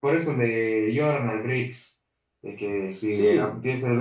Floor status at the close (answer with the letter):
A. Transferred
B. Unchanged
B